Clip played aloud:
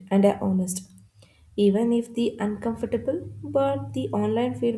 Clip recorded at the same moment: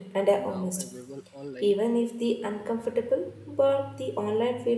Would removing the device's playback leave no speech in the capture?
No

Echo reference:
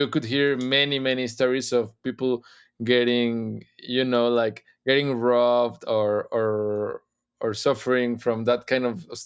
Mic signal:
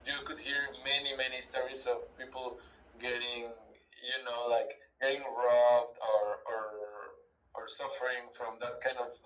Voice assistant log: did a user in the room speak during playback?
No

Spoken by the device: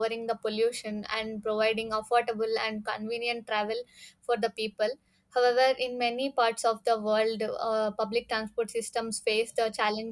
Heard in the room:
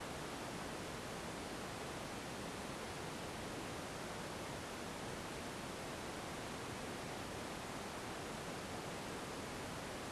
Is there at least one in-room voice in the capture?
No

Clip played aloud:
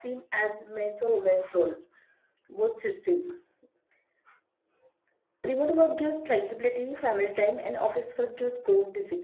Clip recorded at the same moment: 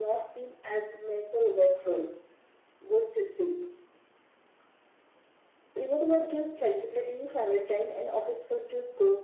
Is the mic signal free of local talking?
Yes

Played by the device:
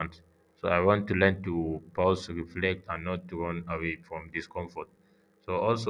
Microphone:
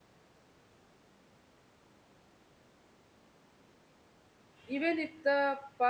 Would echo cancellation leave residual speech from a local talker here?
Yes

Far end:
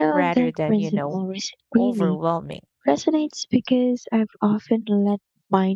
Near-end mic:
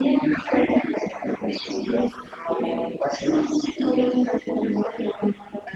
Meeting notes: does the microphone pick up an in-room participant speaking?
No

